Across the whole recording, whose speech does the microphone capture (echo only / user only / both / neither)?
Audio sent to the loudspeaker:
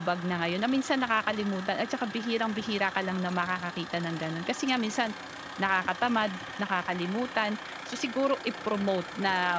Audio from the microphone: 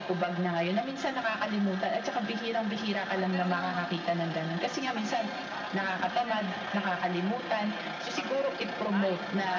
both